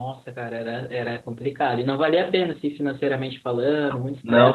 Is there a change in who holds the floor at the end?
No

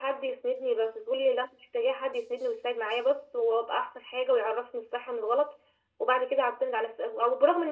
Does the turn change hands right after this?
No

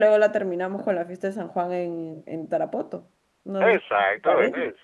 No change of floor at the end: No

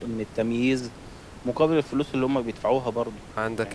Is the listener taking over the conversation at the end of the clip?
Yes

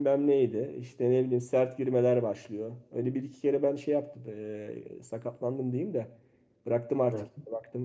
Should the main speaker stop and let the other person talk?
No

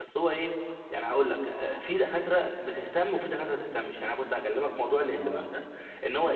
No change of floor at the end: Yes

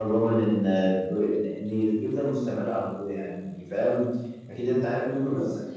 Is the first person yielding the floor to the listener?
No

